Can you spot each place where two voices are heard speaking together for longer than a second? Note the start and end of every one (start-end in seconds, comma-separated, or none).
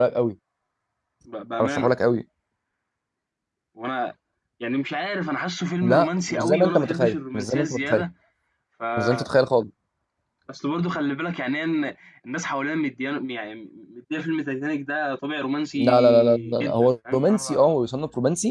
5.8-8.0, 15.8-17.7